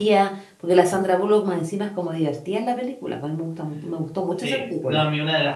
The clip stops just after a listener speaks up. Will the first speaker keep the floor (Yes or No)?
No